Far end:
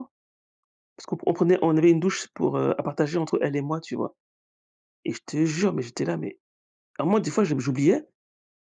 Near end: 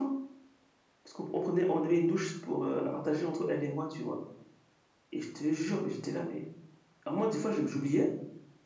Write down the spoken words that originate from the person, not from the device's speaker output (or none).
none